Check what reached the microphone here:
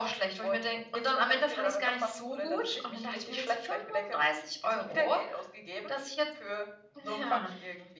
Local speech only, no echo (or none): none